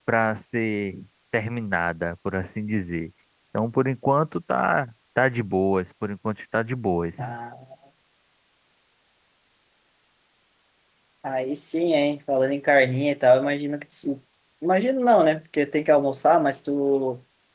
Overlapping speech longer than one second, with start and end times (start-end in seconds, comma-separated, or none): none